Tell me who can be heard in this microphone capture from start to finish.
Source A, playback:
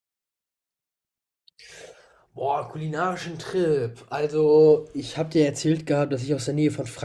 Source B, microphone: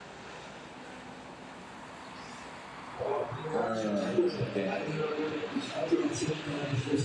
both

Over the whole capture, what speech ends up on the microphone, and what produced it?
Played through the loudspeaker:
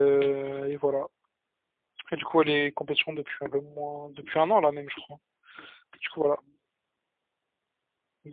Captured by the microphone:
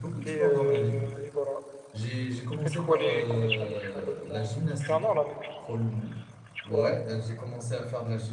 both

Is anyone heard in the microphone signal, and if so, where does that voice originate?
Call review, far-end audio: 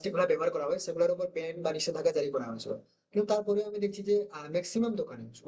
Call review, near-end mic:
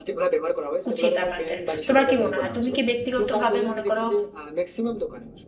both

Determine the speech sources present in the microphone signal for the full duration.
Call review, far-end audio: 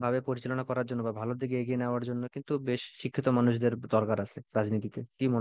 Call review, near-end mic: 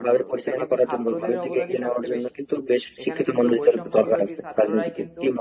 both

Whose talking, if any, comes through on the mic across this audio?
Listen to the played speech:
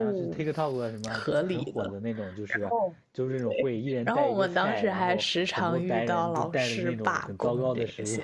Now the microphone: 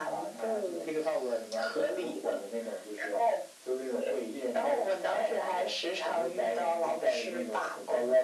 echo only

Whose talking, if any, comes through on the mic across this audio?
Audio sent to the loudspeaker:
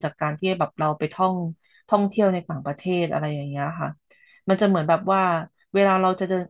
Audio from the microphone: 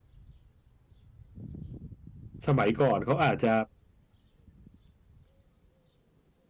user only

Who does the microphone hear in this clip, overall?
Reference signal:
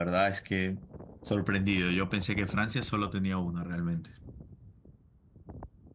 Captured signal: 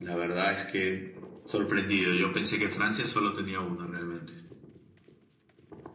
echo only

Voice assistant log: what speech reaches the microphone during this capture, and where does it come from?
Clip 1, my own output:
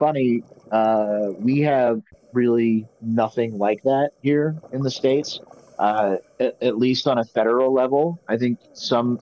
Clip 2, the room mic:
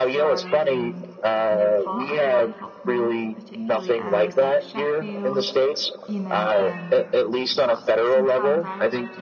both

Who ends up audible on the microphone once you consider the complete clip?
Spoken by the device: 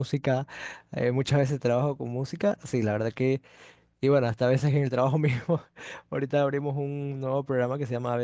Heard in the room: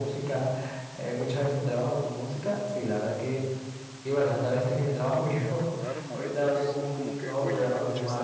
both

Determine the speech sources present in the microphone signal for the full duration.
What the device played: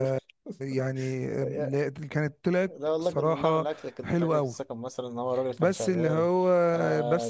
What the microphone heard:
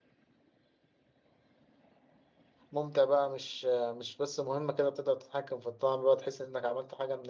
user only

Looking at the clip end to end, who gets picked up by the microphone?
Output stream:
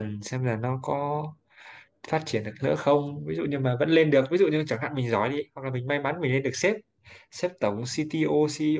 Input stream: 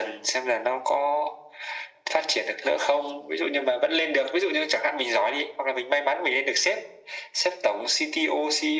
echo only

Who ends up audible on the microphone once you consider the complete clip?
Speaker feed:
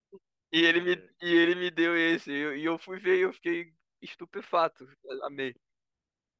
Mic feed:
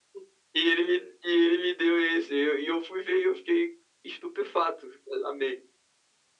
echo only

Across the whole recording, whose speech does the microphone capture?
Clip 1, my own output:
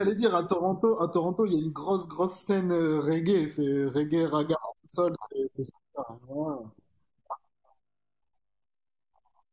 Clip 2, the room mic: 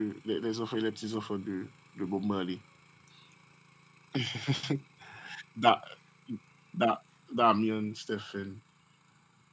user only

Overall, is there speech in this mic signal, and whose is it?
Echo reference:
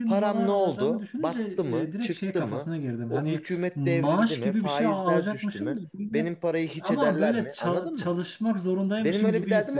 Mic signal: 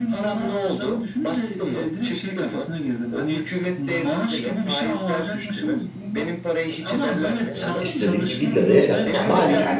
both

